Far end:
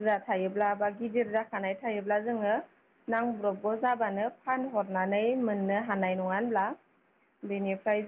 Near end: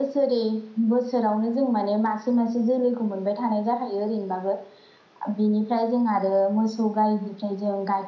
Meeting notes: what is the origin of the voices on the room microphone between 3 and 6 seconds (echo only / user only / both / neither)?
user only